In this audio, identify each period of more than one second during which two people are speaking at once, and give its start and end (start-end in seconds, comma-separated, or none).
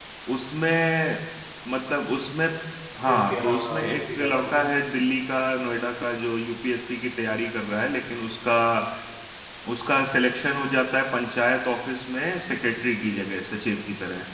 3.1-4.7